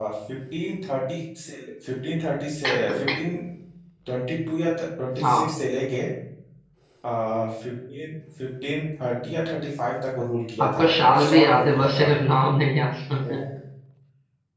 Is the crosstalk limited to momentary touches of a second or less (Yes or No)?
No